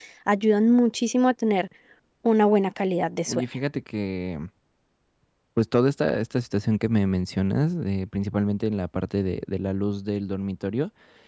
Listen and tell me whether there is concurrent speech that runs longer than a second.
No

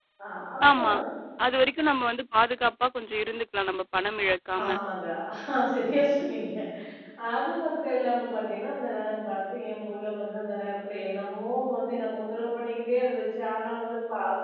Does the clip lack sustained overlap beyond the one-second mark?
Yes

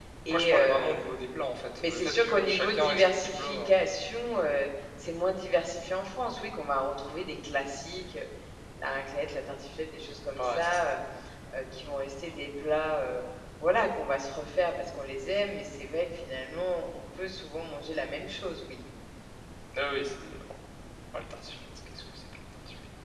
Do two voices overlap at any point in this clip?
Yes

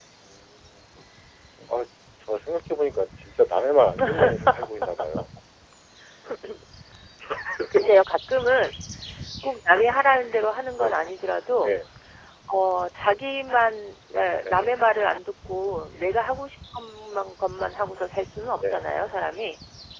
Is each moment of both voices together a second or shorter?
Yes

